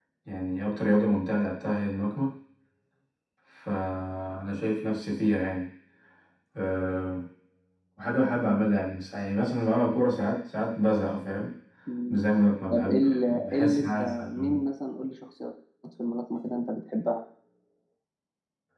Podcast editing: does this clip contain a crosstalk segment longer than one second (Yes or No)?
Yes